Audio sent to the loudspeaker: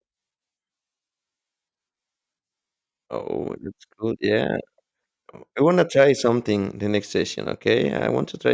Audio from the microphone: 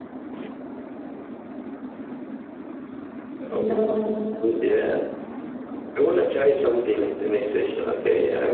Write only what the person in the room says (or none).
no? It,